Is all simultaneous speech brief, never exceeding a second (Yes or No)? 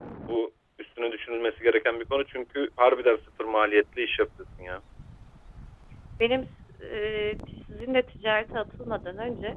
Yes